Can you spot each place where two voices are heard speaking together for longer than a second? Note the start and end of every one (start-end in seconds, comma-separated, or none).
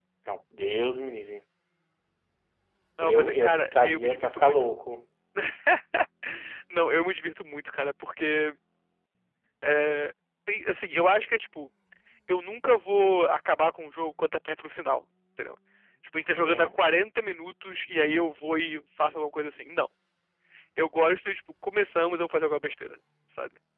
3.0-4.7